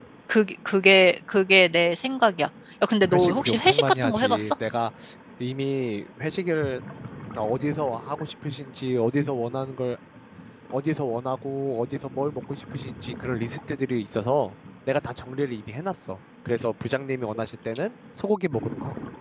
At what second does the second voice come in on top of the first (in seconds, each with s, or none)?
3.1 s